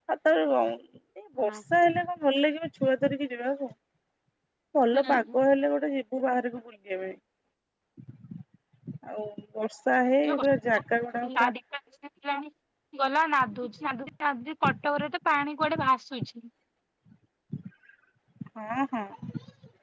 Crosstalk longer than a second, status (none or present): none